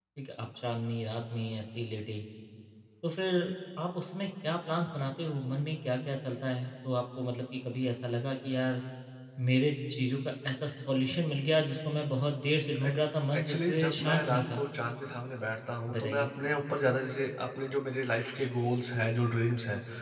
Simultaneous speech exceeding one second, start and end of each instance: 13.4-14.6

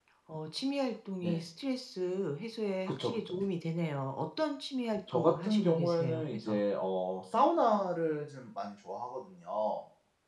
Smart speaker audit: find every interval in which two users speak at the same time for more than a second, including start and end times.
5.1-6.6

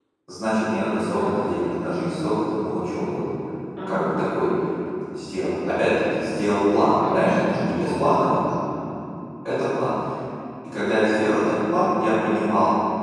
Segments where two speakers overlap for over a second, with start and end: 7.1-8.4

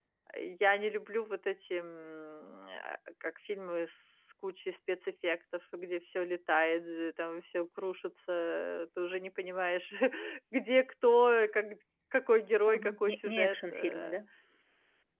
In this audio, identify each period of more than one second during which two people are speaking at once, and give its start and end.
12.7-14.2

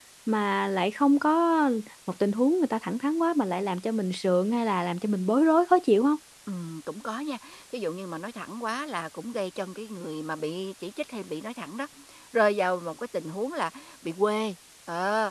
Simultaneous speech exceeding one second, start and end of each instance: none

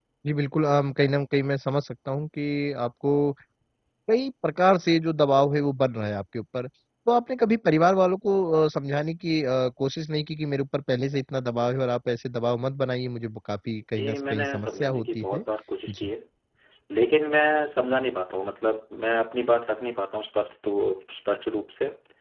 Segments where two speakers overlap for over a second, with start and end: 14.0-15.4

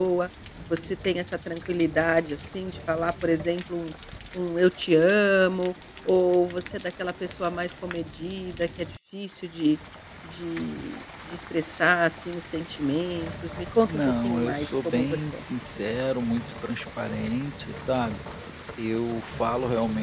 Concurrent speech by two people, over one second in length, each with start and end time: 13.8-15.4

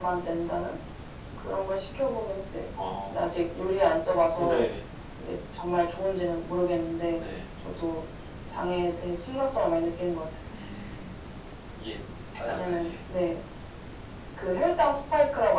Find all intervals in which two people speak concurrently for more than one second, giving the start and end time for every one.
none

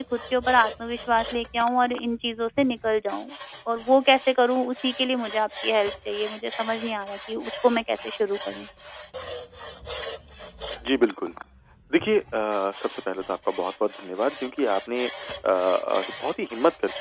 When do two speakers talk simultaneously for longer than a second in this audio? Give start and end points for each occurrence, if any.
none

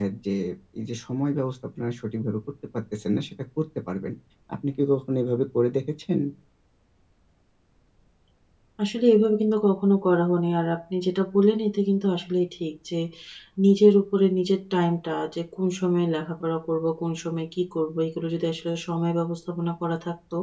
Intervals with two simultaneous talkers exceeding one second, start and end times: none

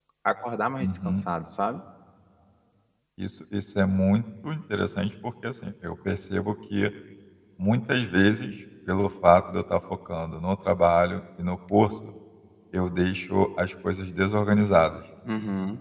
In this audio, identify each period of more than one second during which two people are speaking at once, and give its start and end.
none

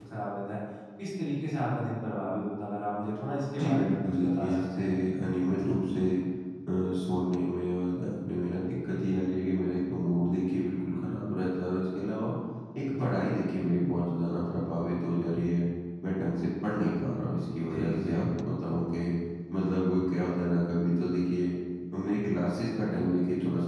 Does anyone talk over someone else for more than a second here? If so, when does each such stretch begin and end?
3.6-5.0

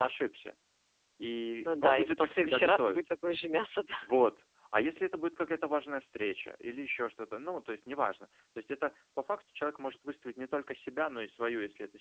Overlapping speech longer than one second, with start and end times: 1.6-3.0

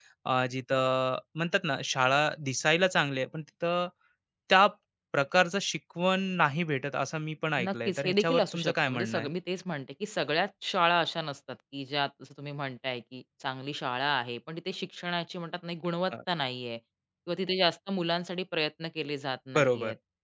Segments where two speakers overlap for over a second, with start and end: 7.7-9.3

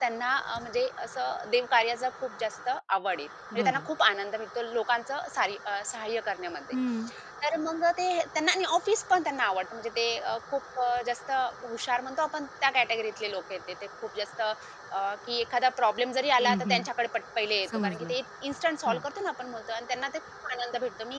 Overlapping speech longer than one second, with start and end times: none

